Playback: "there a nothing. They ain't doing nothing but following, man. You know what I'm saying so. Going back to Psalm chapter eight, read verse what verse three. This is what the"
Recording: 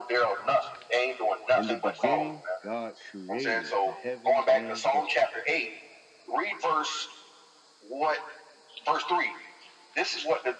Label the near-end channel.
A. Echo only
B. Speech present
B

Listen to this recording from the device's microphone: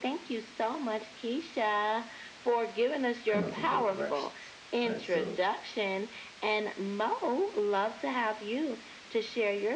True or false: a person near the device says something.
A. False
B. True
B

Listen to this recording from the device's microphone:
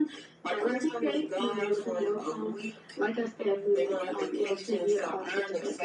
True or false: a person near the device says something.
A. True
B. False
B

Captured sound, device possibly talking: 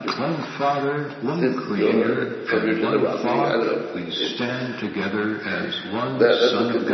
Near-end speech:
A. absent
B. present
B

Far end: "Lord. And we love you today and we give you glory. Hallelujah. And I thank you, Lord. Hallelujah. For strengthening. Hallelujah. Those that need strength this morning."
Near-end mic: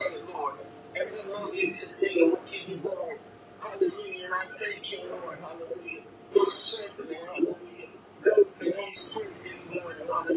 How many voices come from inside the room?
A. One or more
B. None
B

